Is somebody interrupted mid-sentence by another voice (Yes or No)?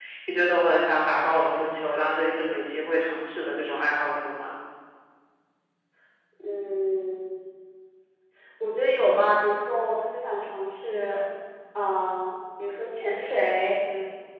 No